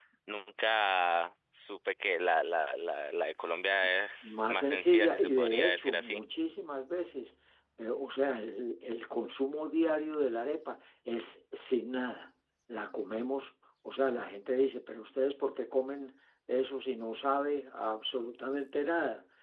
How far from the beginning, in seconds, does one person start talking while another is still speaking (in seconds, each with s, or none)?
4.2 s